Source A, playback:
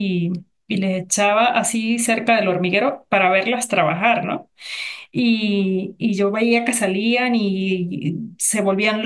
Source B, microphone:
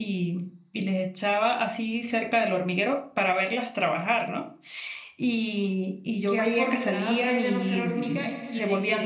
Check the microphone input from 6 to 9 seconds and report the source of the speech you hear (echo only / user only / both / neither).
both